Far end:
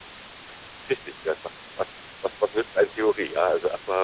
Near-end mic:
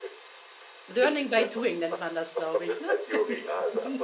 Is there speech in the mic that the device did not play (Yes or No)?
Yes